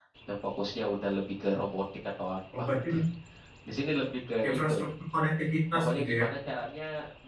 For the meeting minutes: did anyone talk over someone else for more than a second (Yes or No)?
No